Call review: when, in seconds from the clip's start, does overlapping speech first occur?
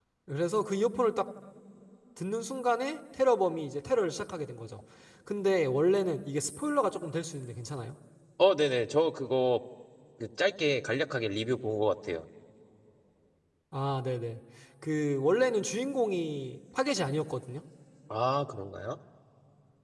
none

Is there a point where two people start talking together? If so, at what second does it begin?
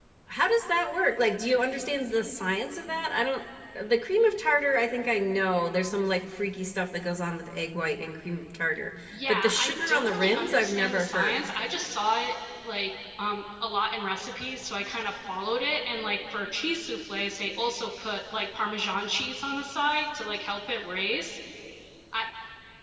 9 s

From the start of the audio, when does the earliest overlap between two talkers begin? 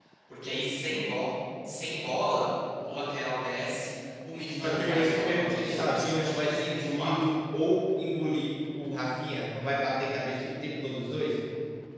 4 s

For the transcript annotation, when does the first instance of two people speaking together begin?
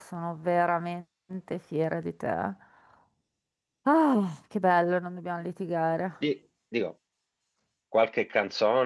none

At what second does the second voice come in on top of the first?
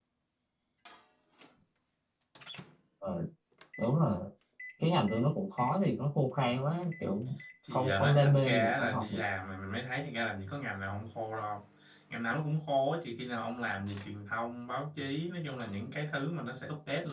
8 s

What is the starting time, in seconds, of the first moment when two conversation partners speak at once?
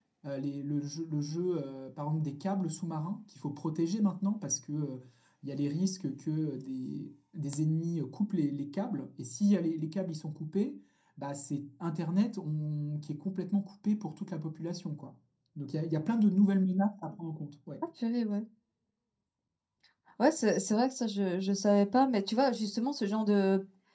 none

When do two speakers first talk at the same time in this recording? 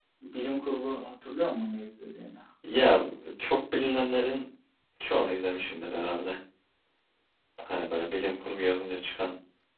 none

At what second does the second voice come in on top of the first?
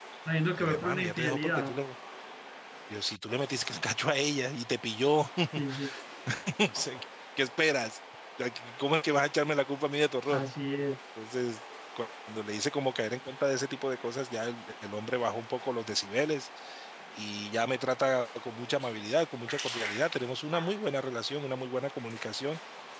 1 s

